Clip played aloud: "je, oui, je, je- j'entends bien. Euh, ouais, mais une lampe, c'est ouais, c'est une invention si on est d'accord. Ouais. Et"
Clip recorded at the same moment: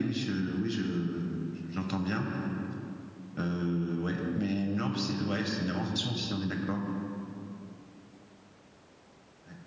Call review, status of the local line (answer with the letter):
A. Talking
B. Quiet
B